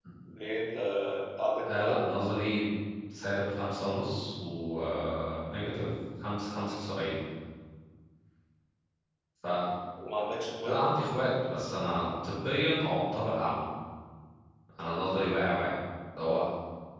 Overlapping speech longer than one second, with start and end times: none

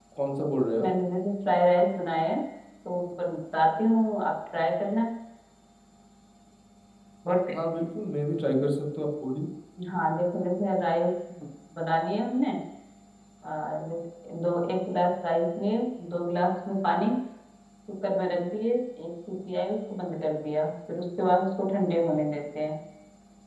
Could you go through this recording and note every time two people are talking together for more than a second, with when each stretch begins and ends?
none

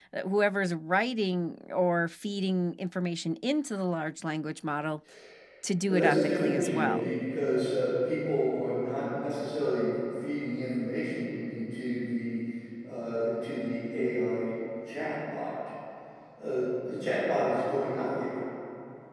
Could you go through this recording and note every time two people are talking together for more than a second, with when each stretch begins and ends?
5.9-7.1

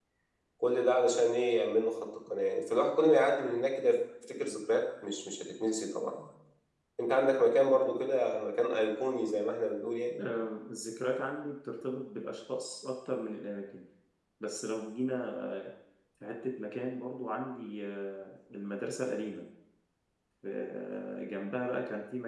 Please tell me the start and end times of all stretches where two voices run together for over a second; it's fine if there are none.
none

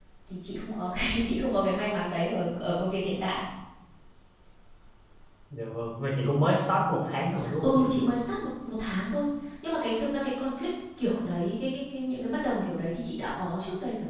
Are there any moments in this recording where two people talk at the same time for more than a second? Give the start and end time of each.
none

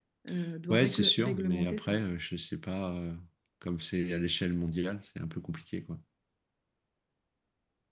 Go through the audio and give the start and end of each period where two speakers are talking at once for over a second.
0.7-2.0

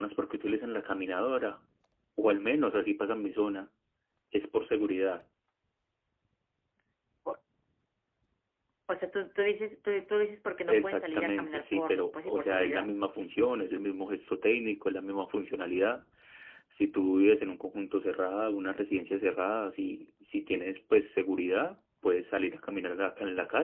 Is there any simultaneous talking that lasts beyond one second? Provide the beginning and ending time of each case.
10.7-12.9

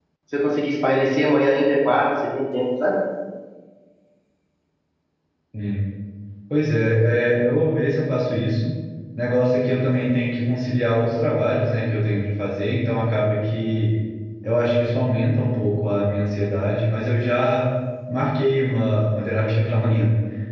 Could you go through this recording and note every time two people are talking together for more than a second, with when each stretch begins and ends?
none

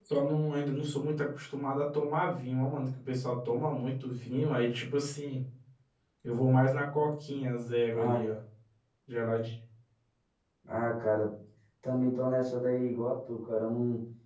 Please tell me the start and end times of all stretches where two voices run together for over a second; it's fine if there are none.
none

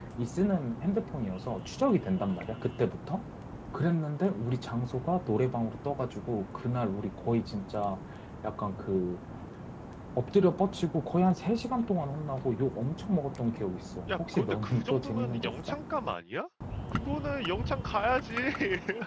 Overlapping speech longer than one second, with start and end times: 14.1-15.8

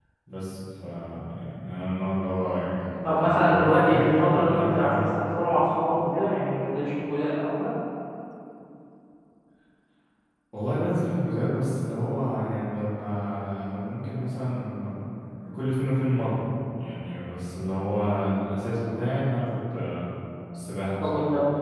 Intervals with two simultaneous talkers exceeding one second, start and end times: 3.0-5.1

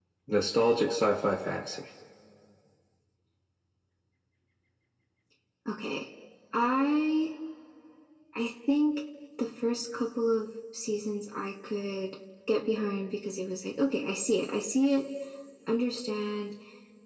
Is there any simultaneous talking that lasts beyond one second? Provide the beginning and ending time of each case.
none

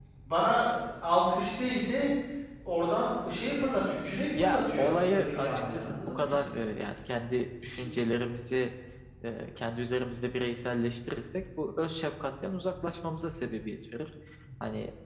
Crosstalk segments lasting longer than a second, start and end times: 4.4-6.5

